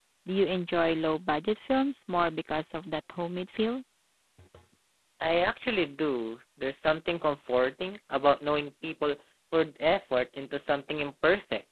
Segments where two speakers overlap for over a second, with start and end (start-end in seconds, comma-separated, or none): none